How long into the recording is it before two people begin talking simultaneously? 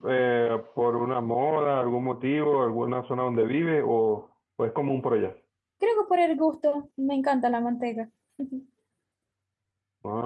none

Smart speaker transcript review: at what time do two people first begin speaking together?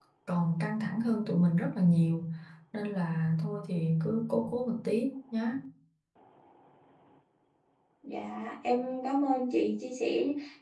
none

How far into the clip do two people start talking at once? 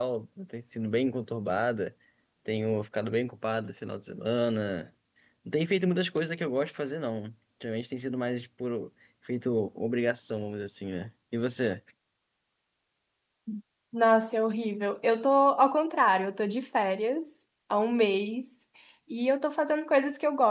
none

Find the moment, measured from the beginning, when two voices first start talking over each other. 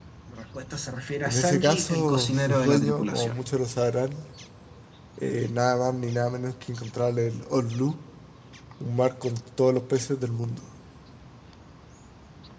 1.2 s

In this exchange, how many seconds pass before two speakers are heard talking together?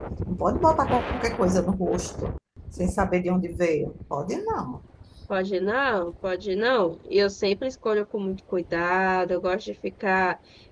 none

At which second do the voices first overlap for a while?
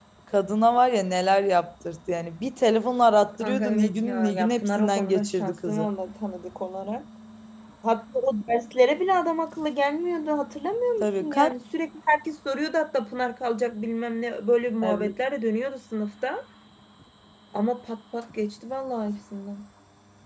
3.4 s

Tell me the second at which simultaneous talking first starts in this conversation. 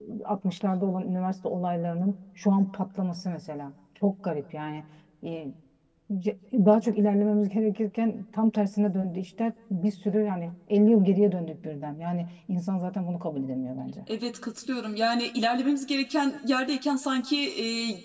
none

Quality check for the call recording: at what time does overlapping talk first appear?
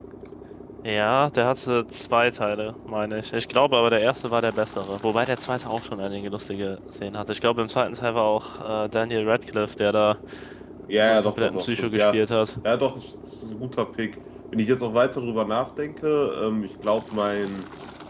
11.0 s

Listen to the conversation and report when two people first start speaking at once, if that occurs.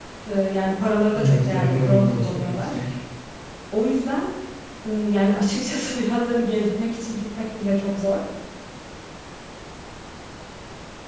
1.2 s

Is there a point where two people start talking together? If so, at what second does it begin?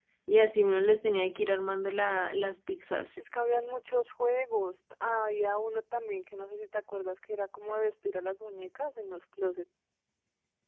none

